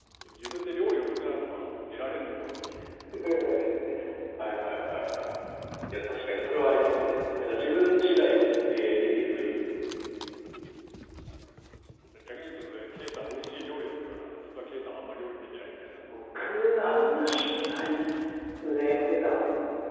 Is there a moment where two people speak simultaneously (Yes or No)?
No